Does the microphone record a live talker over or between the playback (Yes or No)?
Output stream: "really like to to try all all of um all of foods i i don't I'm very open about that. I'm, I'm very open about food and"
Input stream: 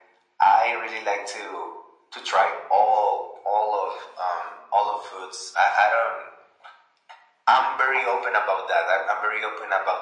No